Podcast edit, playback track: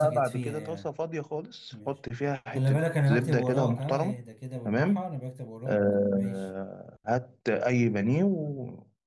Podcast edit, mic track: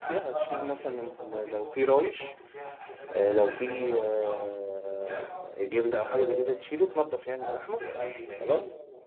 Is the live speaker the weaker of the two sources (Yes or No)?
No